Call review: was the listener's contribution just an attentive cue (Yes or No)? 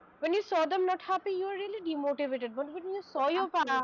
Yes